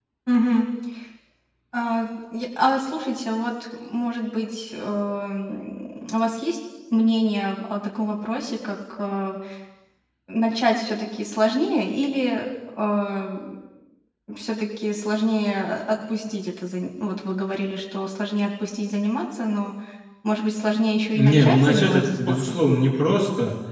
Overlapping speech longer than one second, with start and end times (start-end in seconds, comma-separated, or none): 21.1-22.6